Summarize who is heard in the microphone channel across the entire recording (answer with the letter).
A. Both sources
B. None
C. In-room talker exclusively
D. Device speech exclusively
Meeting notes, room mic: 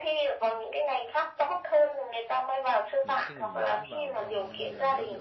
A